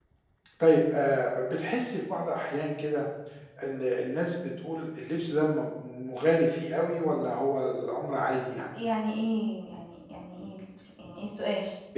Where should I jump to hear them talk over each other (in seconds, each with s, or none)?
none